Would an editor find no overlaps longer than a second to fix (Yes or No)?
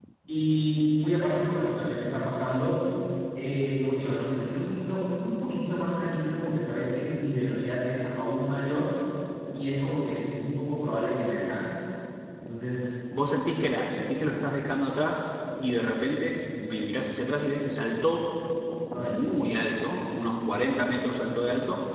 Yes